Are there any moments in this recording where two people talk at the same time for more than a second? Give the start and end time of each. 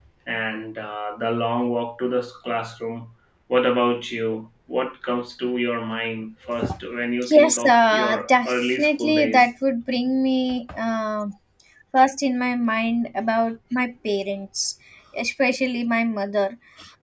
7.3-9.5

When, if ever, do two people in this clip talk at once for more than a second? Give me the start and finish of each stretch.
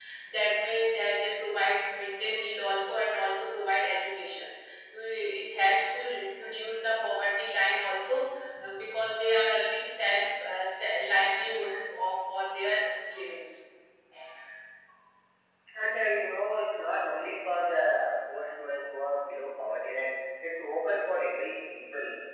none

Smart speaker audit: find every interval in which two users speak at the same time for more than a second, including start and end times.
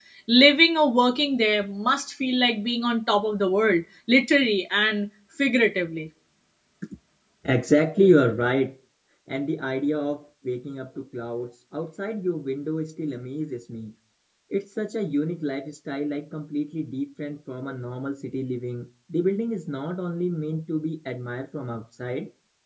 none

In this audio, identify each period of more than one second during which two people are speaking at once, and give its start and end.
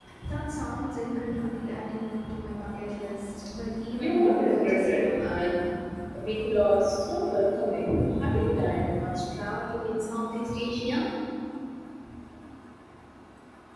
4.0-5.2

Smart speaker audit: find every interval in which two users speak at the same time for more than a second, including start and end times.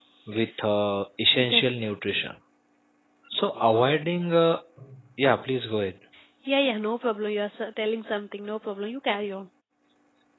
none

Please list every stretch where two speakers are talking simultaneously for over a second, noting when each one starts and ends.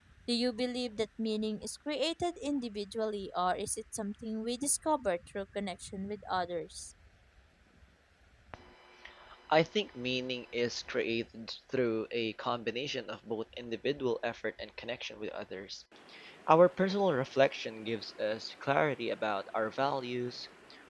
none

